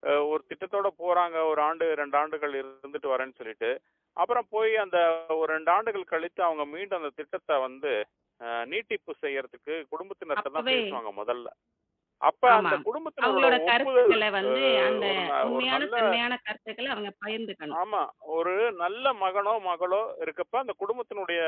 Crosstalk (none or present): present